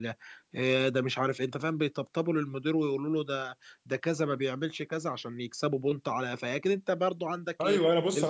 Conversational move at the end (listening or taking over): taking over